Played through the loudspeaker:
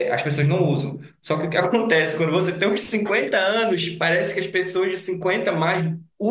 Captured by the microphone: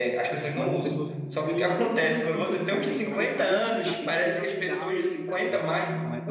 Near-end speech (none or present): present